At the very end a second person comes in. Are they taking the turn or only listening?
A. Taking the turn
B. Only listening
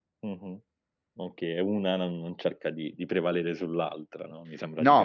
A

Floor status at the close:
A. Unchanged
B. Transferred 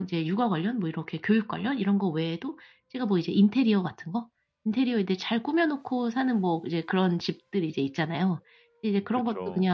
A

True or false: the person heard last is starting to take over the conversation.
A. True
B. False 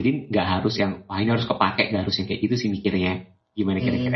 A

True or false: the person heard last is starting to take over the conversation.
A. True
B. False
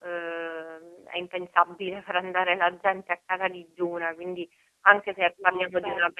B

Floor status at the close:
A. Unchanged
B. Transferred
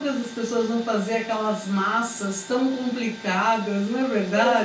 B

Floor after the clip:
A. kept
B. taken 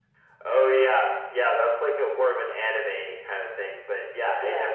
A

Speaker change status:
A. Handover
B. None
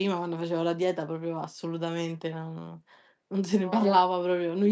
B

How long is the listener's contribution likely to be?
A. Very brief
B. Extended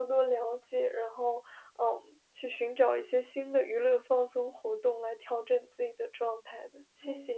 B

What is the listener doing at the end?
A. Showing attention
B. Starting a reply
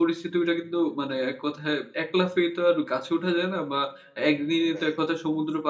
A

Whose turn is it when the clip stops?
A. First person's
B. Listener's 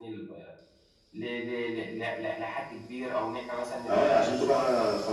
B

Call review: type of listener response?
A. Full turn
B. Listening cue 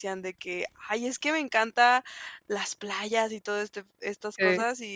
B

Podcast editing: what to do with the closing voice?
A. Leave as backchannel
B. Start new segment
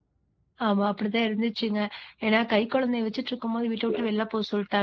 A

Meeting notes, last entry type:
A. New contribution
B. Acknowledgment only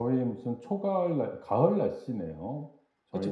A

